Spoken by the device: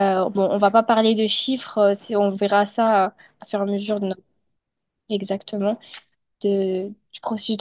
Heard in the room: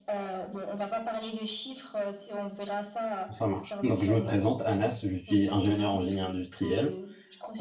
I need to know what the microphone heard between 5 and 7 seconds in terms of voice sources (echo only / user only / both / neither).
both